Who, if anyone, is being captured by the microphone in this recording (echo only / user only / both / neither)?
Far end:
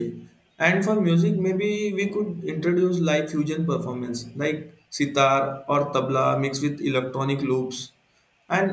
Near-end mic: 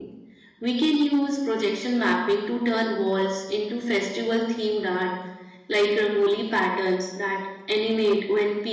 user only